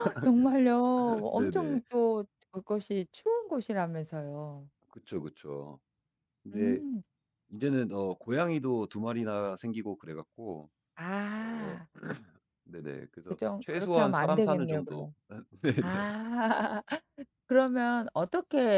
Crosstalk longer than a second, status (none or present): present